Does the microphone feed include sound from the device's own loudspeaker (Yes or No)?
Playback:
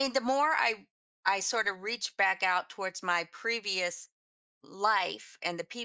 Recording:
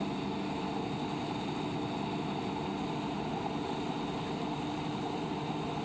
No